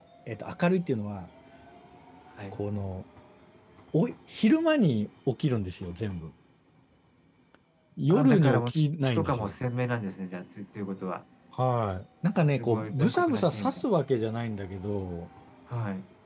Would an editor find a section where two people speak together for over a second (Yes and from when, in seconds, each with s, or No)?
Yes, from 8.1 s